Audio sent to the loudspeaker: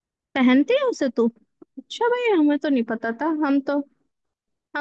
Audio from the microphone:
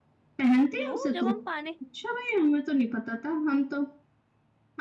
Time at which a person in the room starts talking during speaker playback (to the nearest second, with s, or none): 1 s